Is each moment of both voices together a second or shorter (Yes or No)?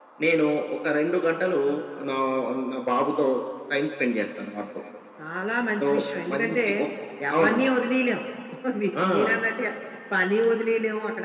Yes